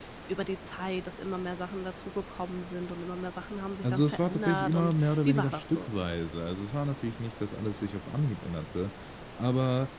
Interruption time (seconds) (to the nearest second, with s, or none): 4 s